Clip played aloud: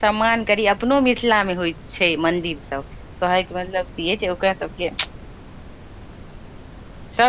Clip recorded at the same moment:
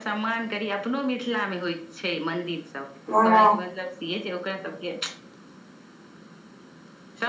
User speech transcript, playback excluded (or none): महाराज